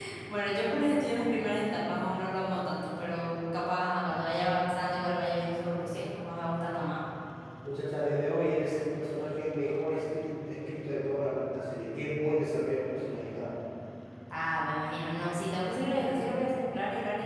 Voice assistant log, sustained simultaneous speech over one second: none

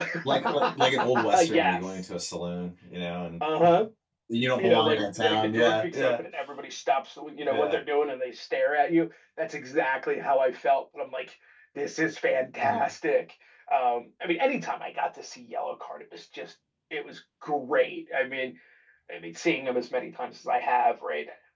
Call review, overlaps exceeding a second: present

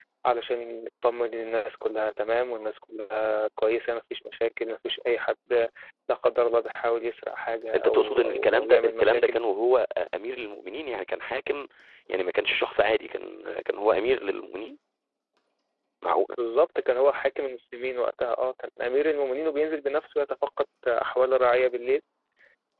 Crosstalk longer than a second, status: present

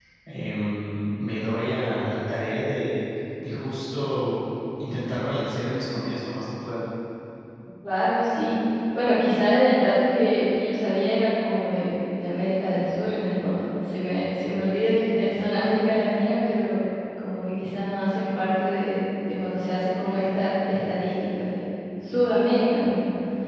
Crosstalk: none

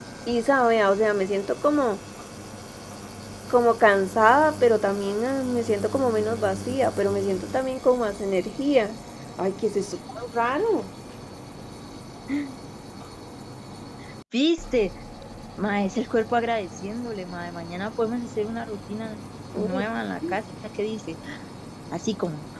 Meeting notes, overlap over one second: none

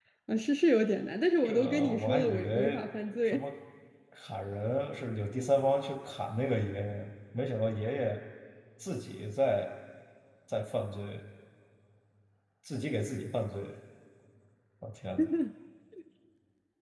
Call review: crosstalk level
present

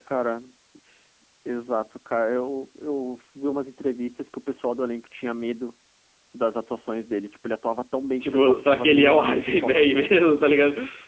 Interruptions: present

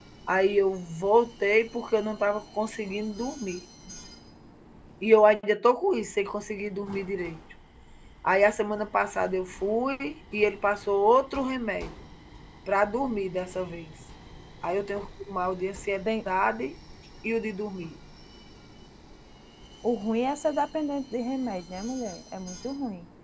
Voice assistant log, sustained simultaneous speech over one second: none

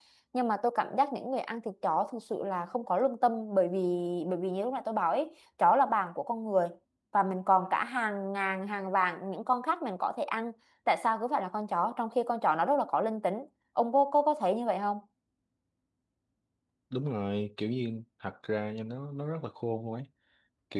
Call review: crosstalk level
none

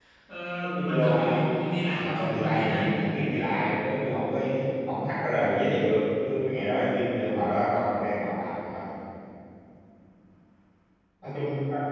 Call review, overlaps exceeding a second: present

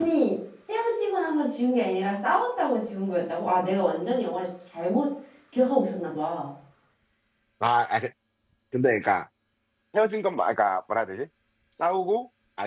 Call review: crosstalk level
none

